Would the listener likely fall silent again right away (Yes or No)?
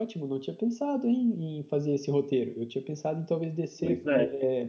Yes